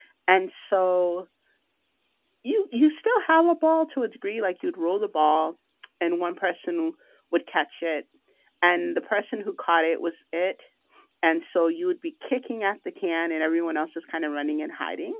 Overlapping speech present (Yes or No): No